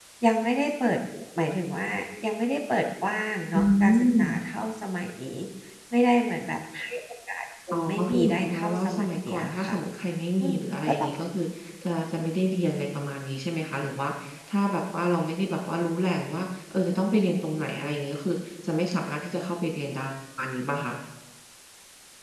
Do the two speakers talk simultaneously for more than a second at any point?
Yes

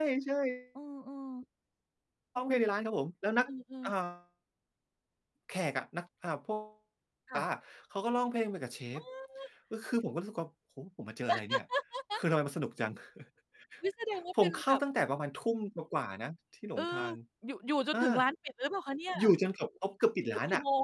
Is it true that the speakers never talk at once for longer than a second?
Yes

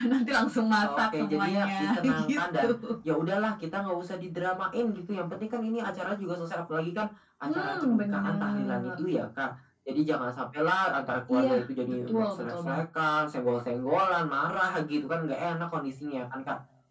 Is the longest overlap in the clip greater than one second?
Yes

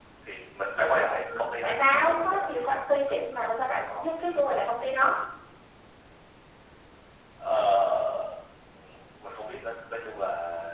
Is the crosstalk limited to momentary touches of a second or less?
No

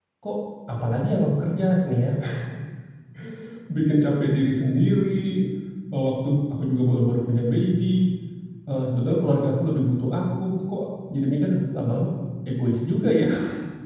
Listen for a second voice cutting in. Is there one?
No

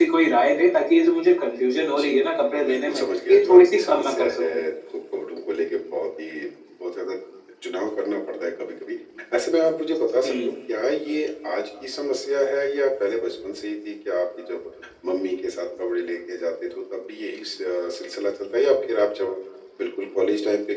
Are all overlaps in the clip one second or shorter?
No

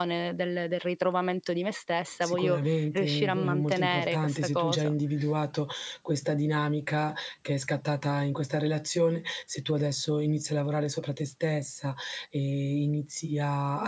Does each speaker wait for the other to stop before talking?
No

